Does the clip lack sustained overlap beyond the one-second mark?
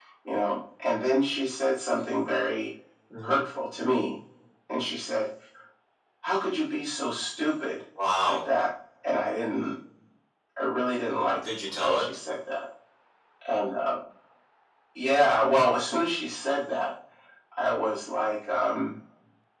Yes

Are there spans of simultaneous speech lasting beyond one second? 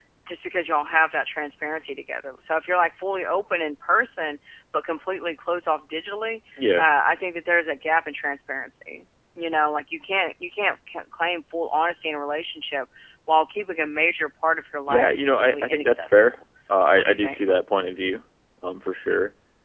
Yes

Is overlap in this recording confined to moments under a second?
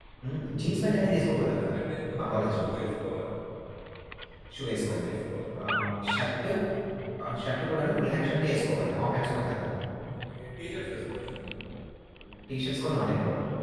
Yes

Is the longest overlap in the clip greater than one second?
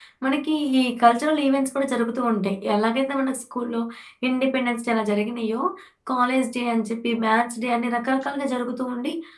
No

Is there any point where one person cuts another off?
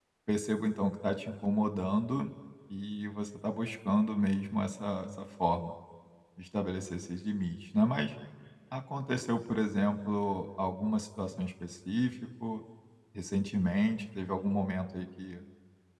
No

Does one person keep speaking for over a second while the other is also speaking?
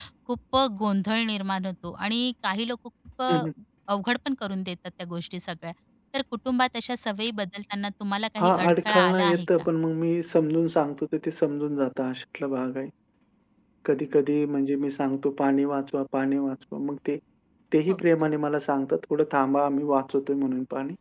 Yes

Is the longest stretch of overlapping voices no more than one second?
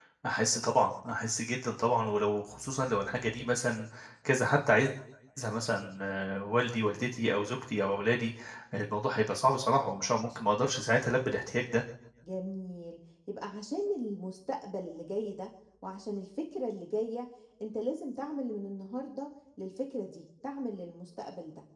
Yes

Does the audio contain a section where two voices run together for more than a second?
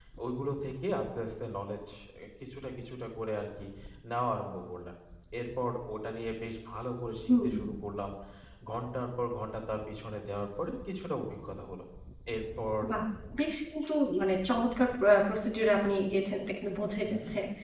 No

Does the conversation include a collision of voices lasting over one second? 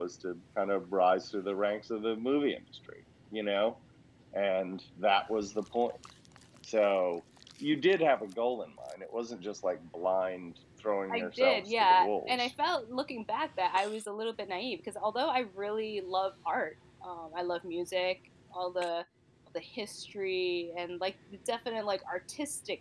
Yes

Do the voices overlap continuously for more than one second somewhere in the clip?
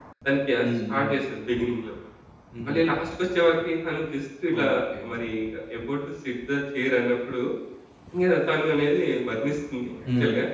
No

